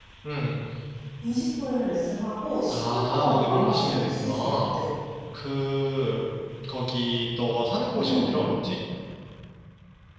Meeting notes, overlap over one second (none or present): present